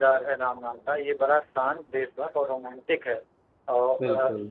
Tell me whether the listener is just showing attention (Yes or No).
Yes